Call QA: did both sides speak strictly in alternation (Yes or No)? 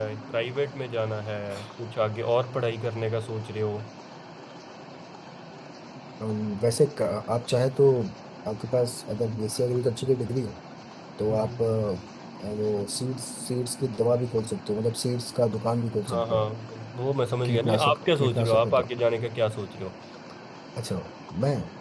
No